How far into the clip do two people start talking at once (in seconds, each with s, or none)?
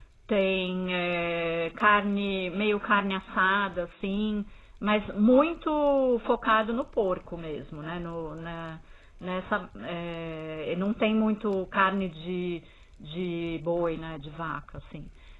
none